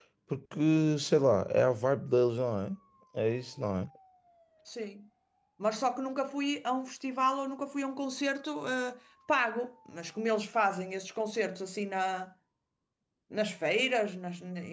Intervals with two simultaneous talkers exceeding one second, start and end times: none

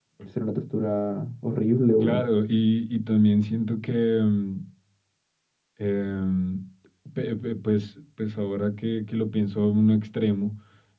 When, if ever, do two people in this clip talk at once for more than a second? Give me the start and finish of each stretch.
none

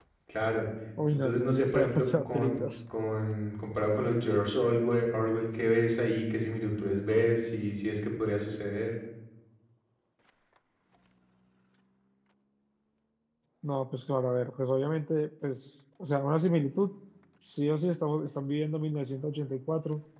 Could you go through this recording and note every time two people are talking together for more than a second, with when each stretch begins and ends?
1.1-2.6

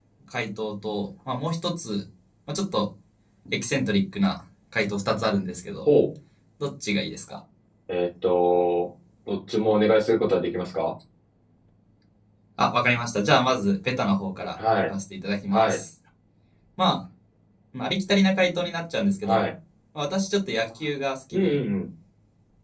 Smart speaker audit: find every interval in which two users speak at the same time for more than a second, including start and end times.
none

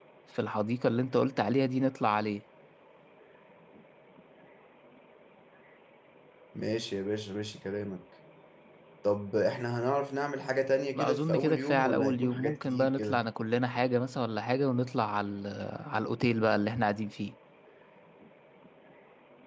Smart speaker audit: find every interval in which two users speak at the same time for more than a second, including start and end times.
11.0-13.2

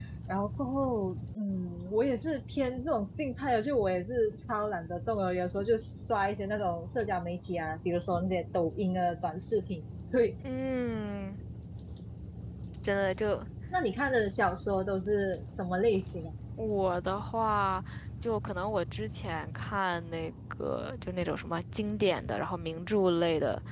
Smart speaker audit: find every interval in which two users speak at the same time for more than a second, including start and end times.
none

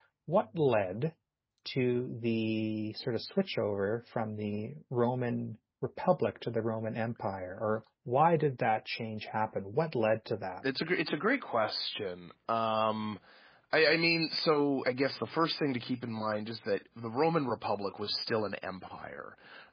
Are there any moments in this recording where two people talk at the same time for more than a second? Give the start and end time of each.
none

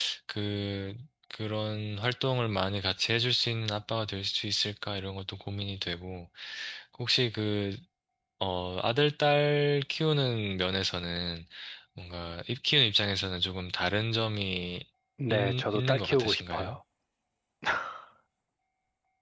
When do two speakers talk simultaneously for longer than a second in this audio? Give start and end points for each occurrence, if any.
15.3-16.8

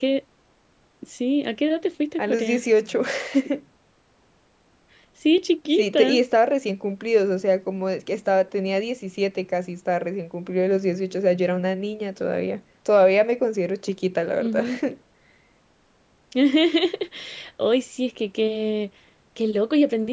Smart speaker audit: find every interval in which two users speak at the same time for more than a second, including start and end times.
none

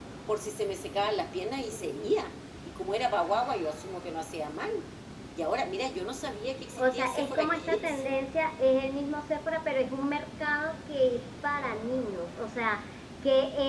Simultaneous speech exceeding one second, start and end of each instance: 6.8-8.0

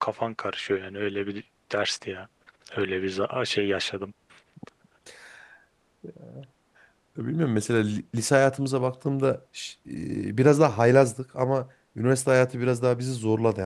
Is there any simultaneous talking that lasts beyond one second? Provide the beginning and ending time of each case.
none

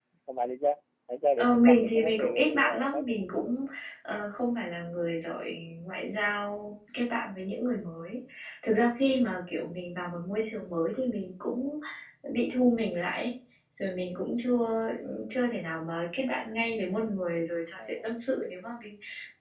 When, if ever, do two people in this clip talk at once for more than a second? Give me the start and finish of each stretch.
1.4-3.4

